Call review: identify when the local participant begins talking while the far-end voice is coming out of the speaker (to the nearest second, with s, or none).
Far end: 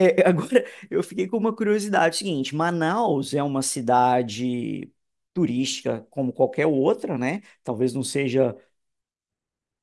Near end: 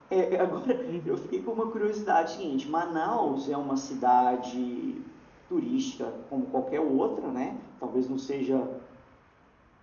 1 s